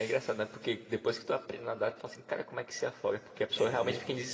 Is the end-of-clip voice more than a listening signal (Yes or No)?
No